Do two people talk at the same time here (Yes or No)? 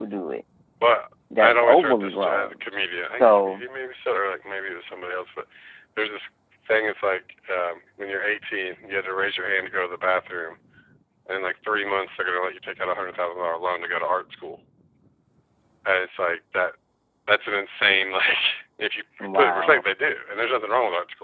Yes